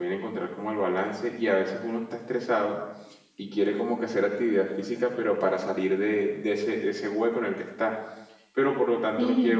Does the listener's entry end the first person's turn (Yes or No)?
No